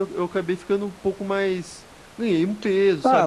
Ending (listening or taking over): taking over